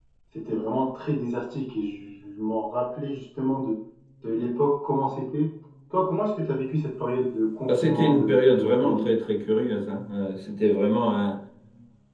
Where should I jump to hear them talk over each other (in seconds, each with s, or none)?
7.7 s